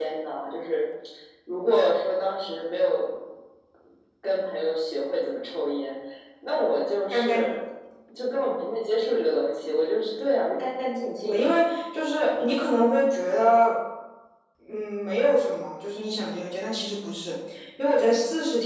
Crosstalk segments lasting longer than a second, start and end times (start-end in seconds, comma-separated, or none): none